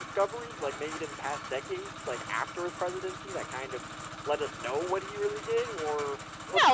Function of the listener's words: taking over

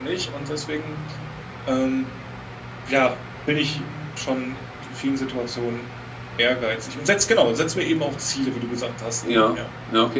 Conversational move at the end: taking over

